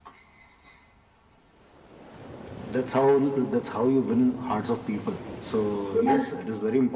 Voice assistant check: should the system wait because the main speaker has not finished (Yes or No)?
Yes